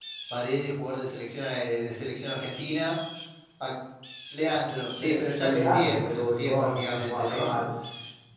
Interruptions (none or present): present